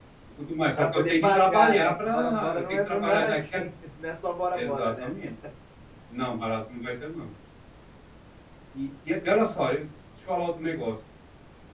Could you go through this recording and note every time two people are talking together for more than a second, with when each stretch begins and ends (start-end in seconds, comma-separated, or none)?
0.8-3.6